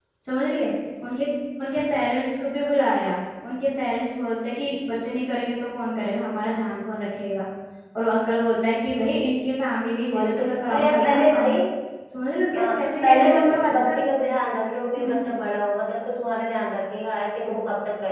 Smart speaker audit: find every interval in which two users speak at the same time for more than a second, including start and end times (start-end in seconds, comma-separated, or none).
10.1-11.5, 12.6-14.0